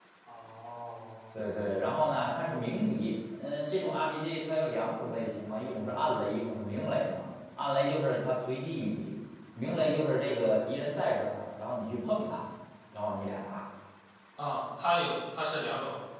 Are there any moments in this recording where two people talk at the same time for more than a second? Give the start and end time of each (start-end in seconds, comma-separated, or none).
none